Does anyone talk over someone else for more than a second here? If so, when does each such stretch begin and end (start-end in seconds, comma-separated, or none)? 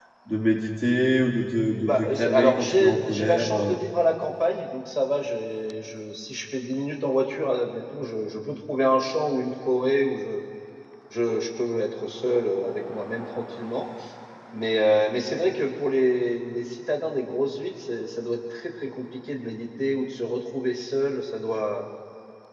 1.9-3.8